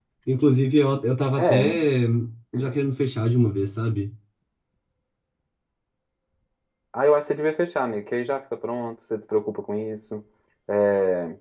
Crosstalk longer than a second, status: none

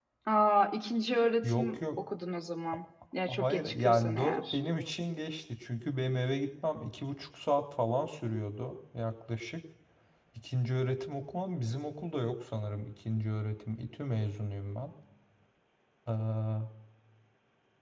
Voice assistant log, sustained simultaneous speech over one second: present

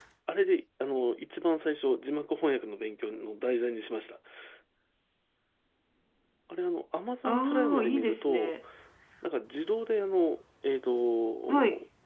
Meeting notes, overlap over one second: present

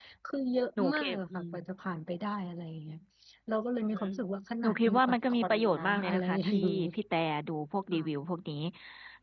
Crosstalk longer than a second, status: present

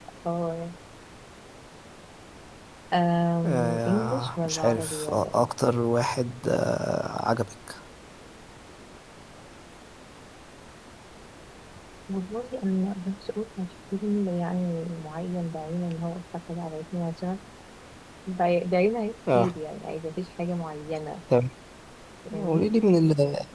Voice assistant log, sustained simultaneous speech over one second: present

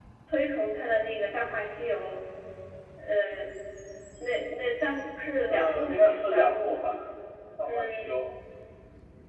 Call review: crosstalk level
present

